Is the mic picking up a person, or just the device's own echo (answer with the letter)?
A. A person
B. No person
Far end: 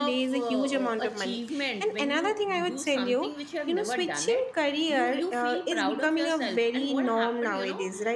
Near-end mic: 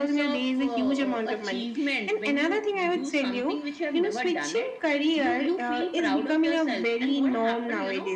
B